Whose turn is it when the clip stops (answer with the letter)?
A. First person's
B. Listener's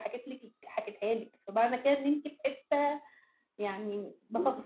A